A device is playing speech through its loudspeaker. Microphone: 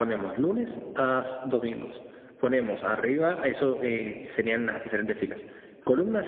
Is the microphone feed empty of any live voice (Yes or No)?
No